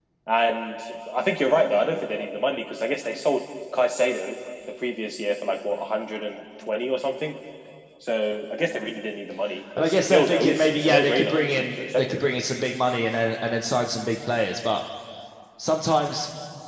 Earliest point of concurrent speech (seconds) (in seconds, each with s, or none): 9.7 s